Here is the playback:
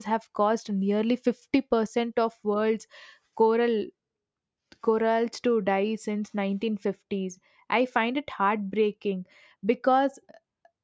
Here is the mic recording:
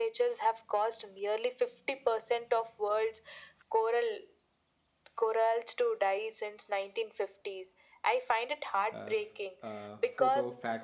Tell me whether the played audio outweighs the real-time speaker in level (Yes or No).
Yes